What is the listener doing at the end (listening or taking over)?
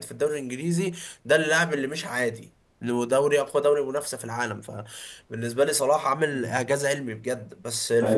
taking over